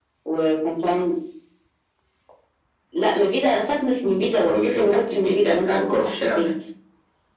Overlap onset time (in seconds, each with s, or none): 4.0 s